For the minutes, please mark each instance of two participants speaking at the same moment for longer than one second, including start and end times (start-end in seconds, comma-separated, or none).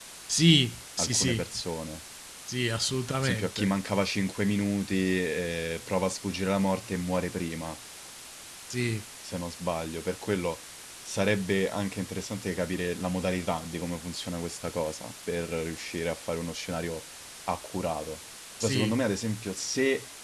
none